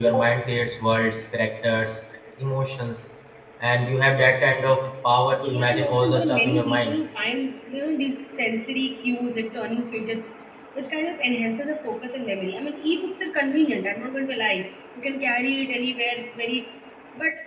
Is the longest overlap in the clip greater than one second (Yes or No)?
Yes